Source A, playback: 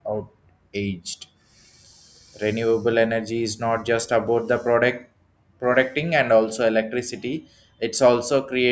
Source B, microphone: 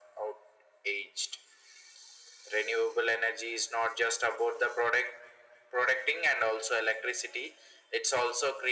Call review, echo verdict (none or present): present